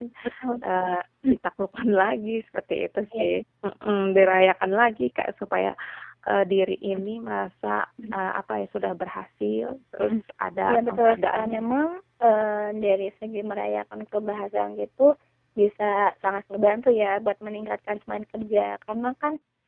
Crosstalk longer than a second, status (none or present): present